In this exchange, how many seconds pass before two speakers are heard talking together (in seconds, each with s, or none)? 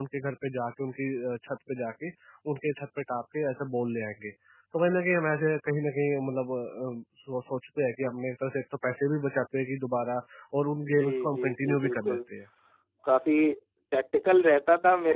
10.8 s